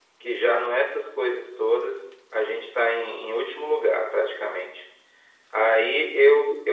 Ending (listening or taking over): listening